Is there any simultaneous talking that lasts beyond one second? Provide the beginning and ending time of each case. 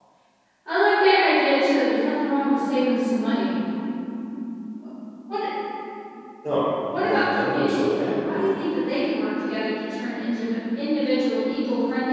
7.0-8.3

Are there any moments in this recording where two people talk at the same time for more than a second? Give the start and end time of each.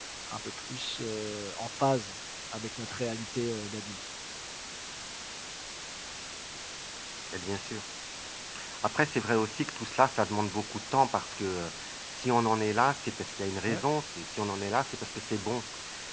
none

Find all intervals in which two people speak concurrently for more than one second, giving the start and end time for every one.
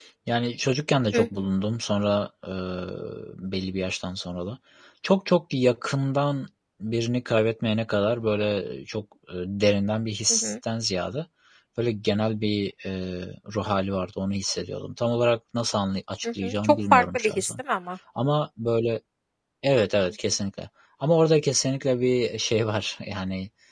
16.2-17.6

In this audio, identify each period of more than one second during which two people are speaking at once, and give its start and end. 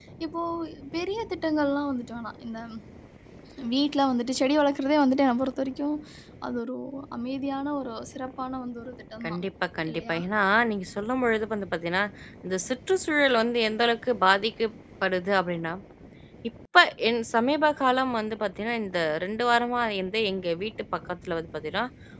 none

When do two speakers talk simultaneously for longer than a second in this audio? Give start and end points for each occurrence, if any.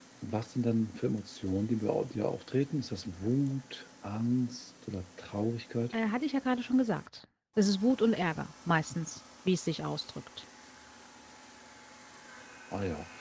none

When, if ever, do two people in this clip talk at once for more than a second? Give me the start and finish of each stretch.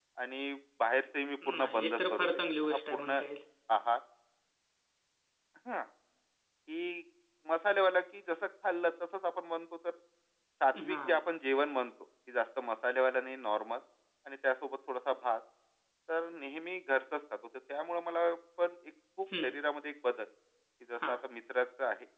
1.6-3.2

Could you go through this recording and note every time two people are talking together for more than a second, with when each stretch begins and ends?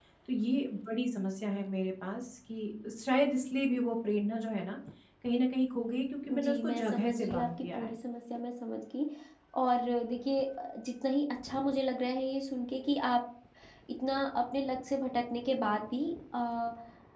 6.3-7.8

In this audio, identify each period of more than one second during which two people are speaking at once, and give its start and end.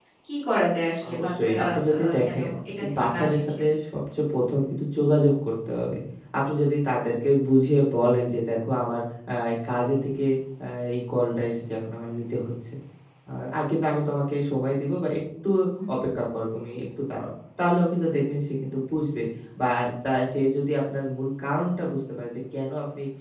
1.1-3.6

